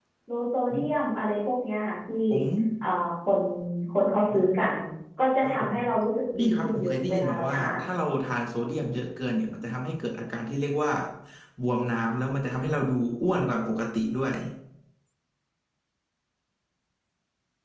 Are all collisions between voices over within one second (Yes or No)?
No